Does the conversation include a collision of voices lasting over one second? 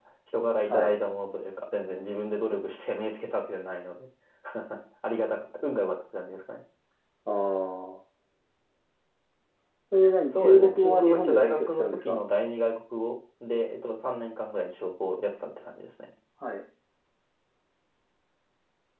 Yes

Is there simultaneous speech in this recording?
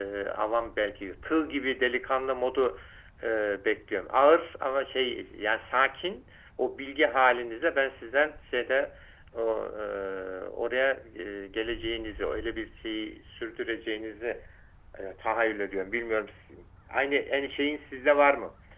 No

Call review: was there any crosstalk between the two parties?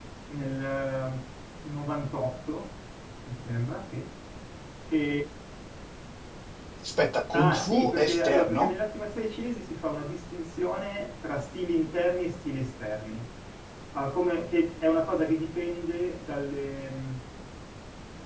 Yes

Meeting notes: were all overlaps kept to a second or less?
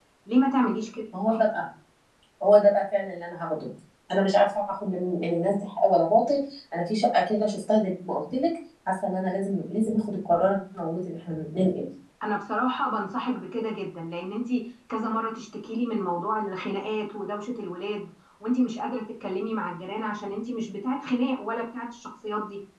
Yes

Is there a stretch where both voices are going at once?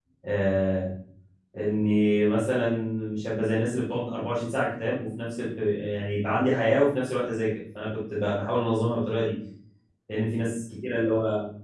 No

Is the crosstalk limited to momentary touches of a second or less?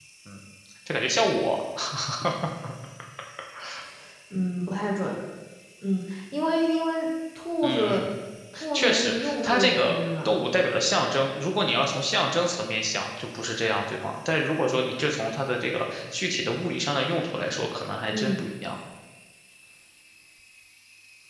No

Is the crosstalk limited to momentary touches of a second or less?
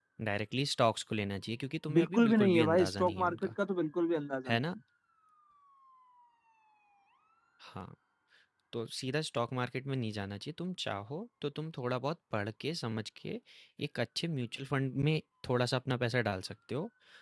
No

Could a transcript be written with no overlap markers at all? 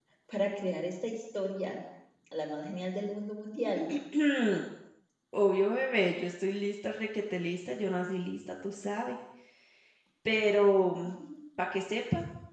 Yes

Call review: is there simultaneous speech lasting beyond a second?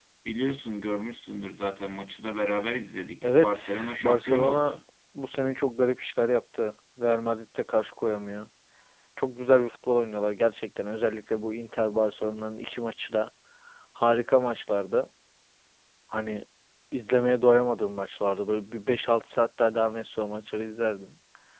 Yes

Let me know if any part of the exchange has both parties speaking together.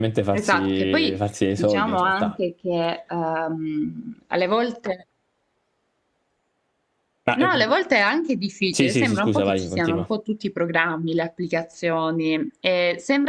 Yes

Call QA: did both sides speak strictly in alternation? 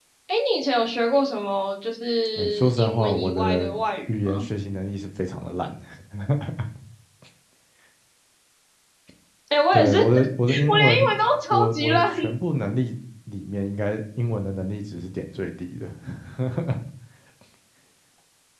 No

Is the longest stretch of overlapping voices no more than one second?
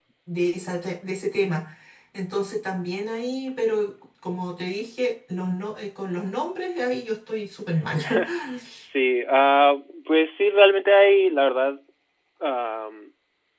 Yes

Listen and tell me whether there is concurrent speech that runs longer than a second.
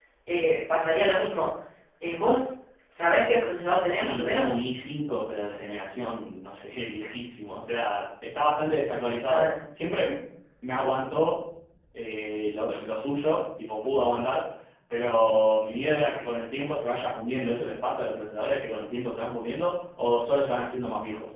No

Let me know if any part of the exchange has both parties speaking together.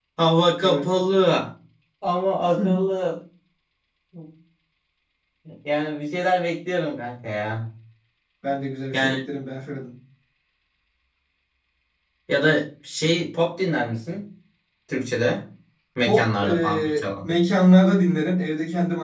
Yes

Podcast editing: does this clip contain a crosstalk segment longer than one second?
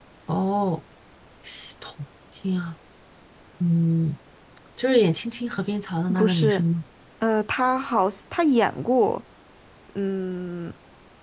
No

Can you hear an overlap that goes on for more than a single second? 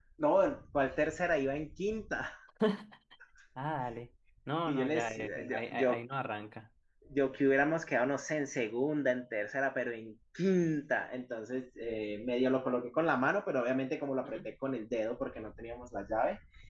Yes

